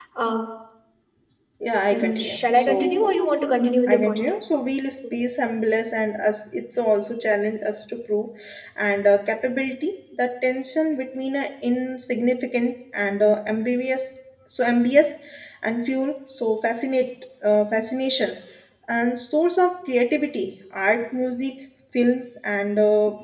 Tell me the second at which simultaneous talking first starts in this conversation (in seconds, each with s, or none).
1.9 s